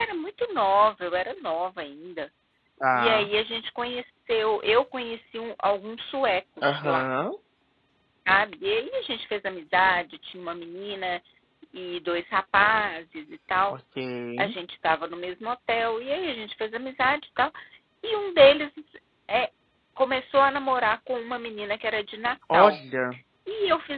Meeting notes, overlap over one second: none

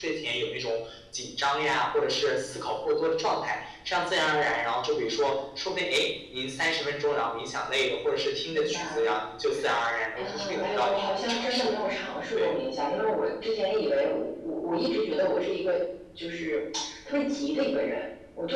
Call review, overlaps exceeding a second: present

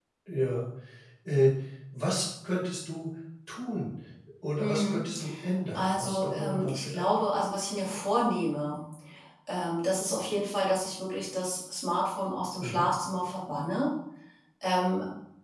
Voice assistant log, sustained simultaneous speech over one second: present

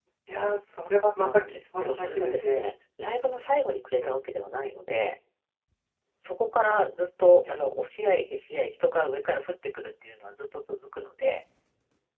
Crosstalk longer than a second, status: present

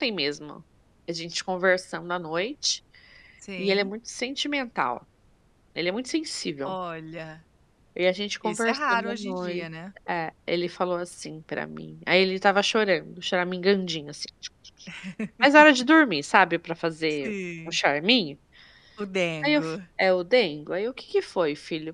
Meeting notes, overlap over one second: present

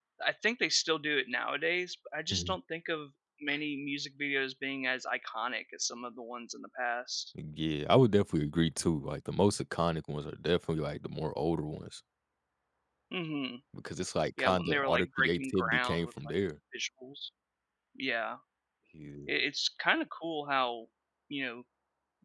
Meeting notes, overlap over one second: present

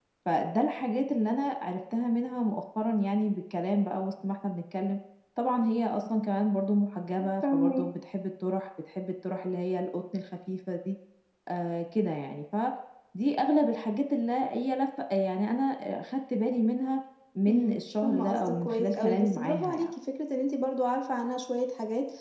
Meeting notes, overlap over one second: present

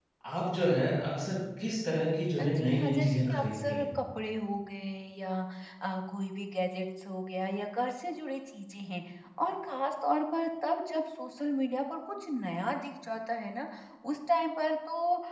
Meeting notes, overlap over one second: present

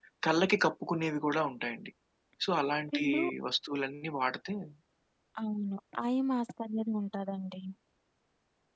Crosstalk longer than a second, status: none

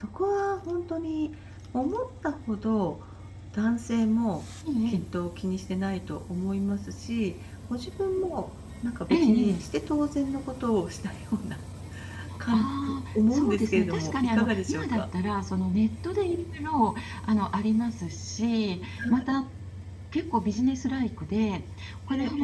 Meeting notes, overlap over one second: present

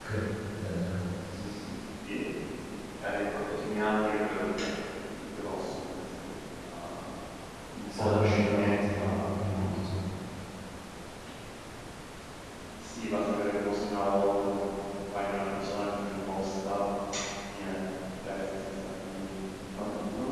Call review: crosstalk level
present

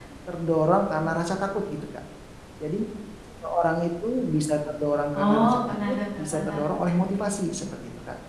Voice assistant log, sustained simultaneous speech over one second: present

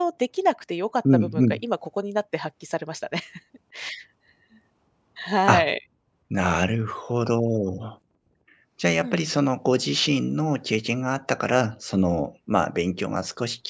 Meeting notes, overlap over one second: none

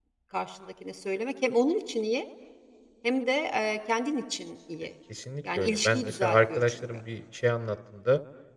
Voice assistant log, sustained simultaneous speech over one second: present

